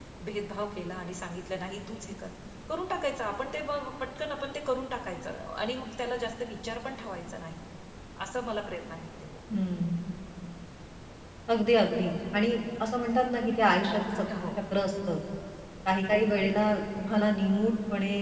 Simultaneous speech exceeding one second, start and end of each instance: none

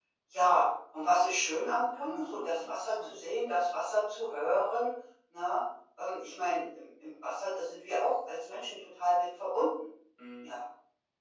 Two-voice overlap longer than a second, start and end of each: 2.0-3.2

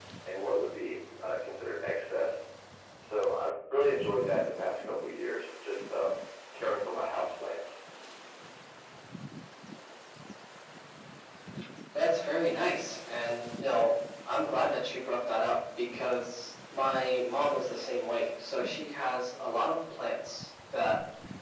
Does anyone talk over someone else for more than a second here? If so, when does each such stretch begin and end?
none

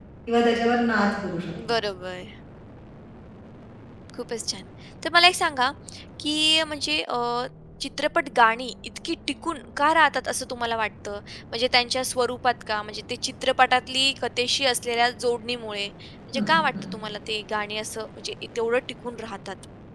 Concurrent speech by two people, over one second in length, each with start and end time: none

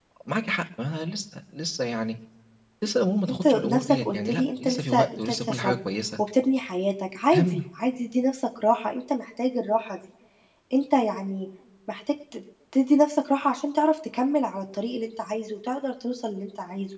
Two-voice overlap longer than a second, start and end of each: 3.3-5.8

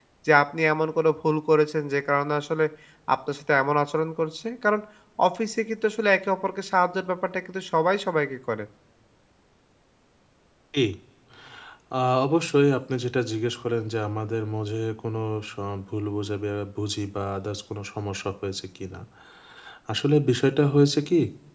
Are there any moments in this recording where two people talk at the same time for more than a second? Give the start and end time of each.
none

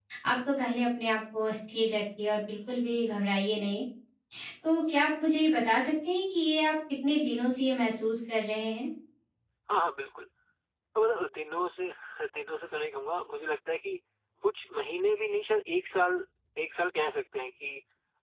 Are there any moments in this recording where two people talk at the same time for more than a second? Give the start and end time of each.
none

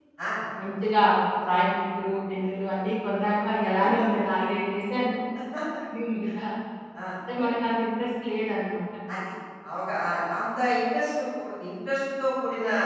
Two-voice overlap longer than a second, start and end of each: none

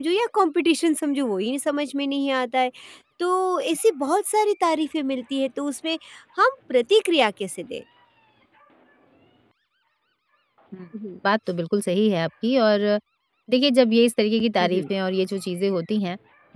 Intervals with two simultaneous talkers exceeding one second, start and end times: none

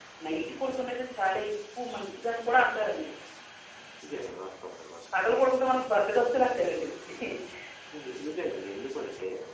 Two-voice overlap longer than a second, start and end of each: none

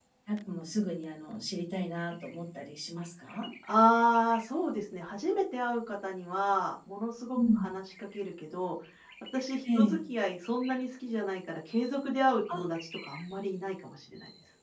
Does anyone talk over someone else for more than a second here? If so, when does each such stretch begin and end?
none

